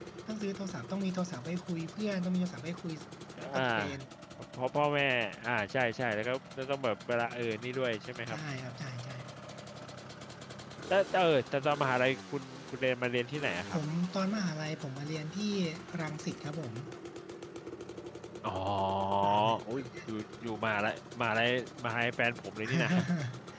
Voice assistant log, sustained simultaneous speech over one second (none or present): none